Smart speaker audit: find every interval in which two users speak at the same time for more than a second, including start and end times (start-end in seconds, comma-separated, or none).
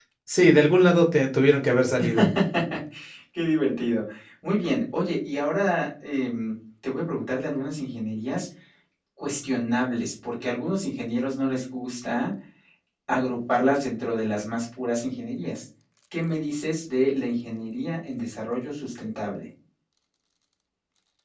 none